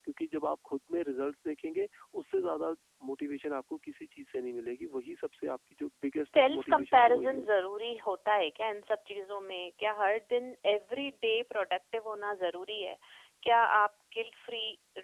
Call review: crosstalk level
present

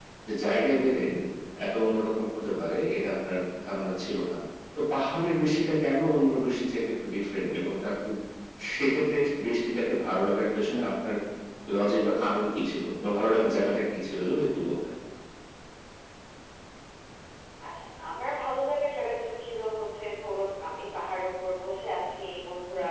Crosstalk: none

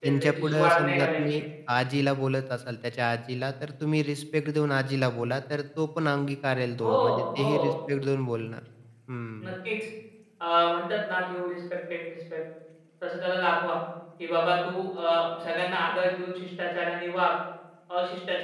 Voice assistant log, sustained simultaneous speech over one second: present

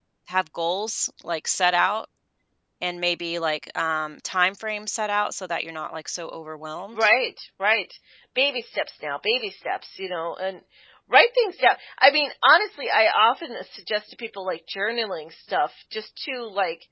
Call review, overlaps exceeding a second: none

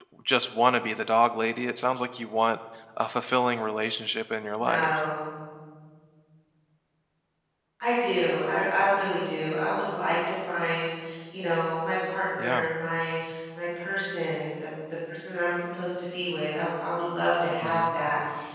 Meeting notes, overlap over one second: none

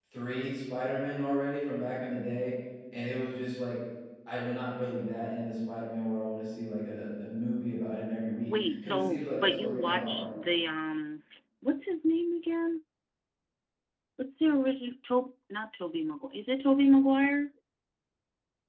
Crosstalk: present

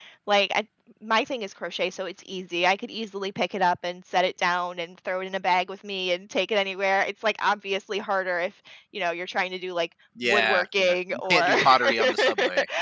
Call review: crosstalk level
present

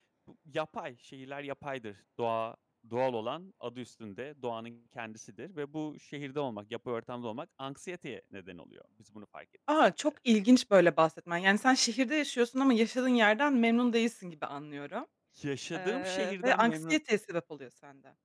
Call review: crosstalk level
present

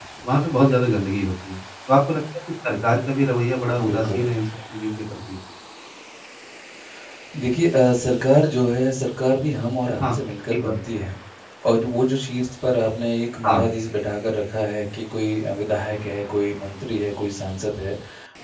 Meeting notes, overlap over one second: none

